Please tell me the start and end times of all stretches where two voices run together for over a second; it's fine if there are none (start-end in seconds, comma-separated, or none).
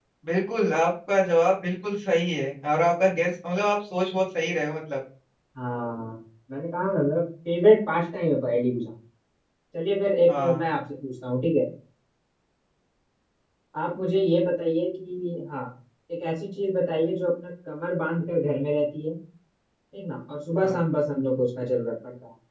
none